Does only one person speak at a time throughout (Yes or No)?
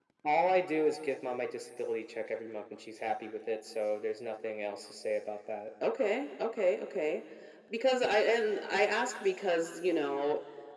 Yes